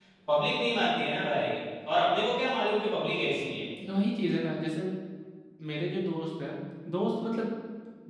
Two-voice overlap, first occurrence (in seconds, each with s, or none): none